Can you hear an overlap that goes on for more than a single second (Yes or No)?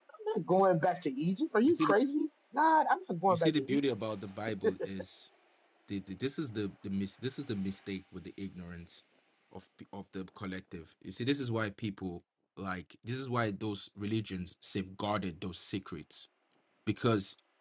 No